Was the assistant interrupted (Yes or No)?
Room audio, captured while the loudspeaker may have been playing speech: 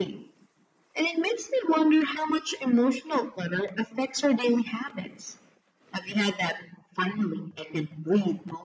No